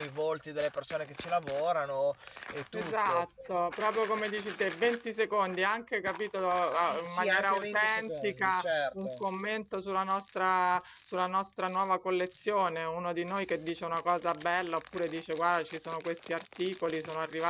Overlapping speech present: Yes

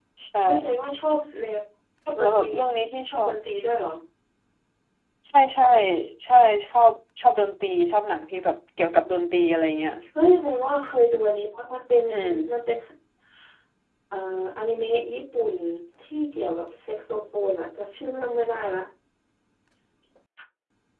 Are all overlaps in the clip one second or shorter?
Yes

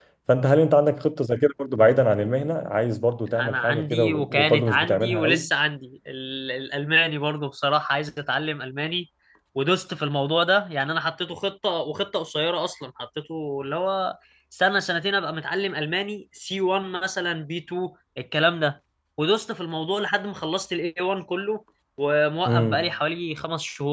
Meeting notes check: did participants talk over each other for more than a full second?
Yes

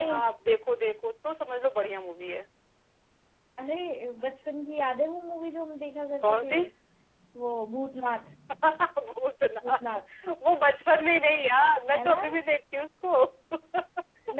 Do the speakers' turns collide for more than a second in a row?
No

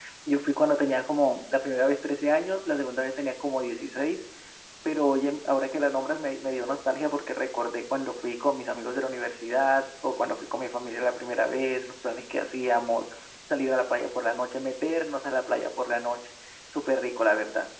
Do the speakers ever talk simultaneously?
No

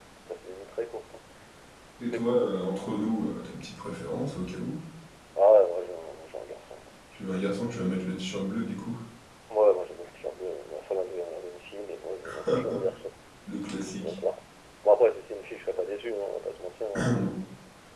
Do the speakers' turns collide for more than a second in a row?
No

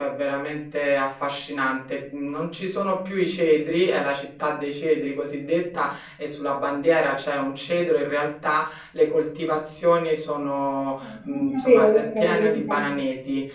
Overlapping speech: Yes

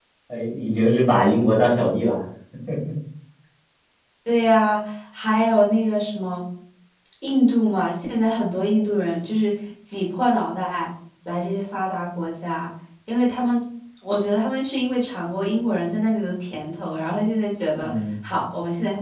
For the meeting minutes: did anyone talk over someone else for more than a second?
No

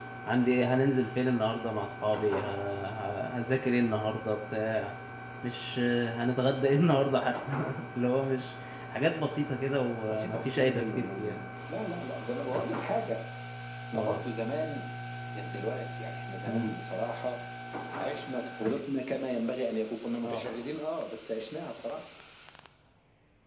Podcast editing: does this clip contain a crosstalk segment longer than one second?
Yes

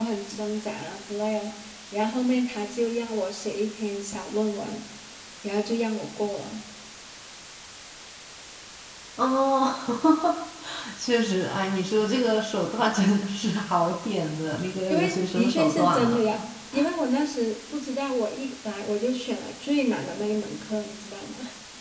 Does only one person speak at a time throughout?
No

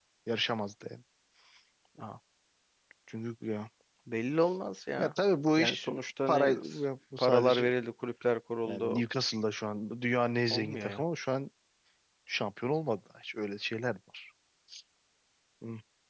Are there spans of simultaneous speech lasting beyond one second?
No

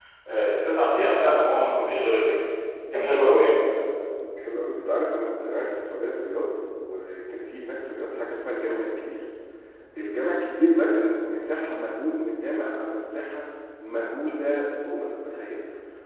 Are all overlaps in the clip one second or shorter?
Yes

